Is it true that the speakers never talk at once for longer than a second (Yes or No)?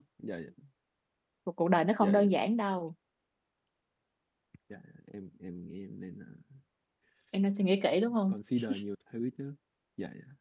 Yes